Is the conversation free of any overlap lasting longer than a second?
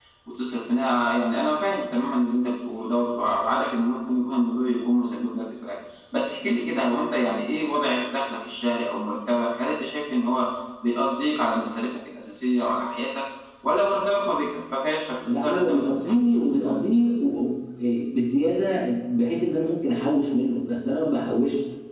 No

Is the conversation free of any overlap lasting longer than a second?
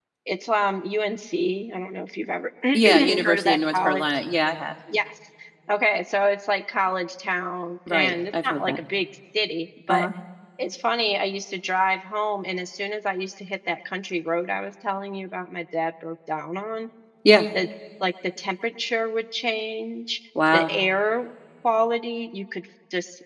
No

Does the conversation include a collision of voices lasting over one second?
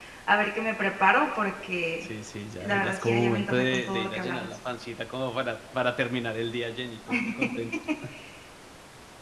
Yes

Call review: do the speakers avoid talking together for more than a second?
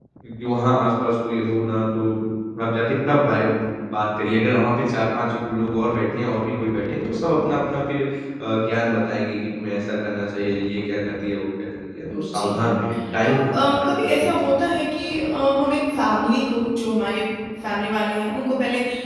No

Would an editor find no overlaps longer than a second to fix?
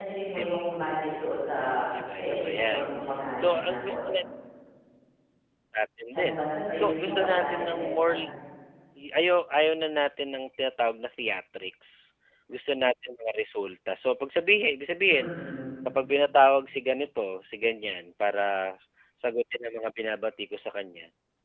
No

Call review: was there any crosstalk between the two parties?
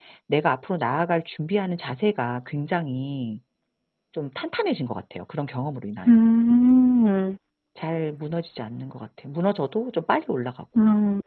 No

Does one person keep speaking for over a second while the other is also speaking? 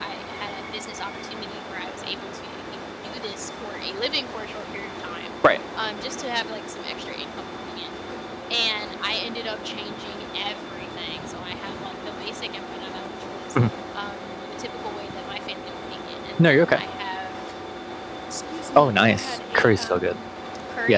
Yes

